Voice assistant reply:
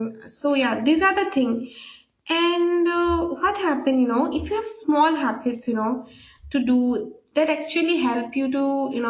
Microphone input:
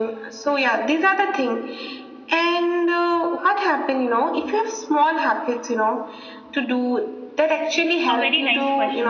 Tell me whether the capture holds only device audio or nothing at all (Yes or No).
No